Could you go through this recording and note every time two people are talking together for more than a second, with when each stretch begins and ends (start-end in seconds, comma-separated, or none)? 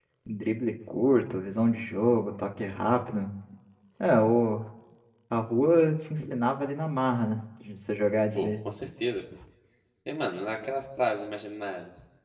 none